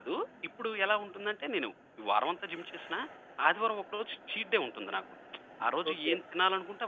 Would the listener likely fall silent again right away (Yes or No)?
Yes